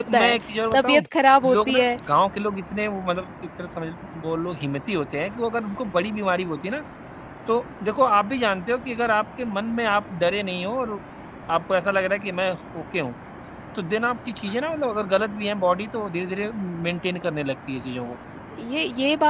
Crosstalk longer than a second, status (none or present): none